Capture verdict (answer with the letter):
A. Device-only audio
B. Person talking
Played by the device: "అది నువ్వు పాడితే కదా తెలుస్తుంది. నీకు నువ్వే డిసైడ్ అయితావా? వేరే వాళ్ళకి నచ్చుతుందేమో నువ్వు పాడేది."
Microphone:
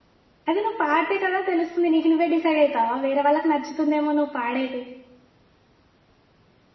A